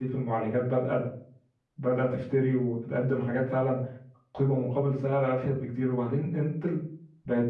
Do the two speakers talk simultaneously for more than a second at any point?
No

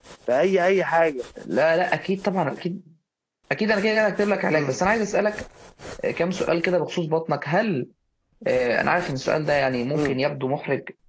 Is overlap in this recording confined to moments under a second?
Yes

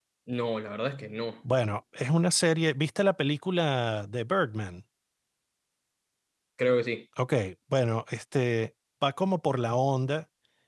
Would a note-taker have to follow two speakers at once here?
No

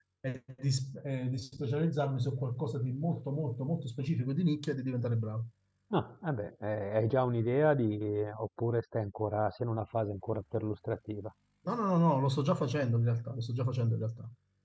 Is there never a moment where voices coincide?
Yes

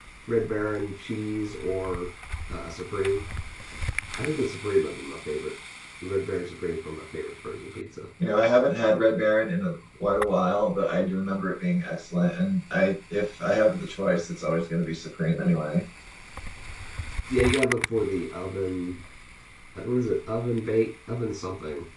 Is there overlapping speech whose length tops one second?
No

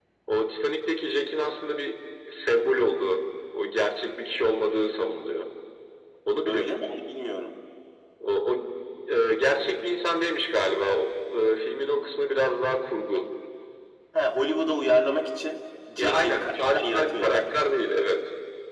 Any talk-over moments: Yes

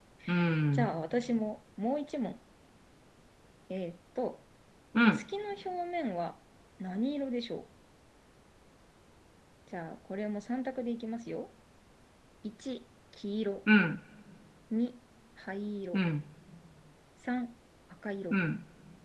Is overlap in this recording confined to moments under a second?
Yes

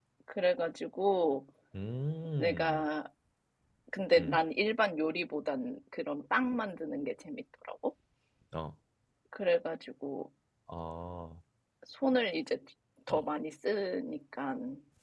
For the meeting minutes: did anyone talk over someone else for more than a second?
No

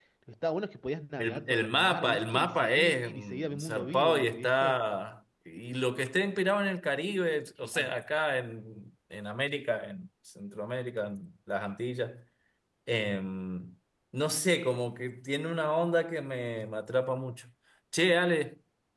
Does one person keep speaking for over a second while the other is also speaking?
Yes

